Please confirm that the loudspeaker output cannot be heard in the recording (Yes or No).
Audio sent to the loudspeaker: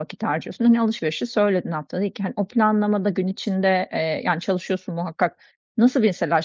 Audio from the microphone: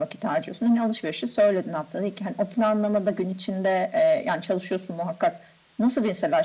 No